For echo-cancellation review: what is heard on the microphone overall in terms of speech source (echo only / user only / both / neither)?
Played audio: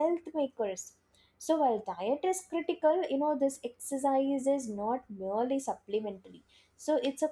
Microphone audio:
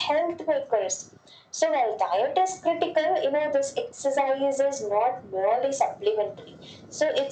echo only